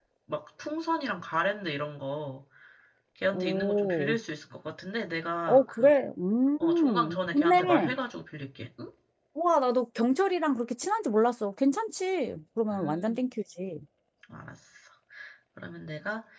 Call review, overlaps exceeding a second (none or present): present